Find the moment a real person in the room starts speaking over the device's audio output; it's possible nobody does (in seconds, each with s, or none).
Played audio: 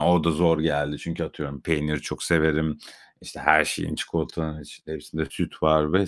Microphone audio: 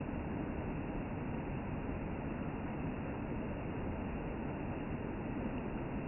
none